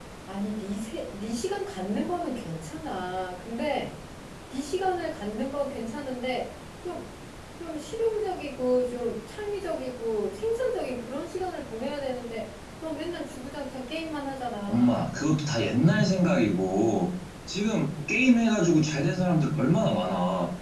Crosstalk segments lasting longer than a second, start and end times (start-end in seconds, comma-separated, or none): none